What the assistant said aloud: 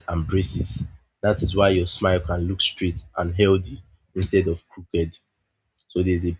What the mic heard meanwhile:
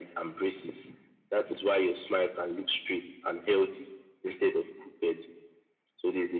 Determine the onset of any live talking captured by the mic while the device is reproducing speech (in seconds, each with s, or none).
none